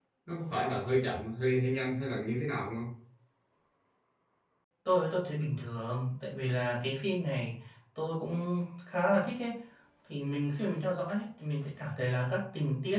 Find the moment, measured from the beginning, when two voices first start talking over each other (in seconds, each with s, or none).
none